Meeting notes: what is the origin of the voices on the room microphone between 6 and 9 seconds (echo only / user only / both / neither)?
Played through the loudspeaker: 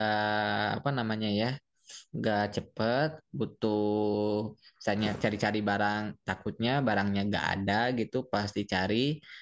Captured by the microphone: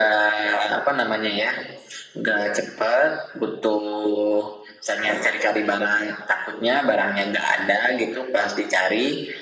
echo only